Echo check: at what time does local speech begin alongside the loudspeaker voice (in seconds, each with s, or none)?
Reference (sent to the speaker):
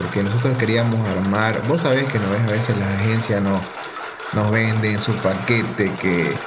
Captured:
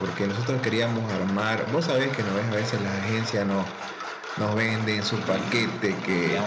5.1 s